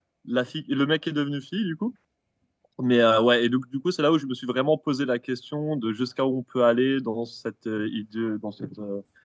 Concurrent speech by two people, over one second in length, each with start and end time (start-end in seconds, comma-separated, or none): none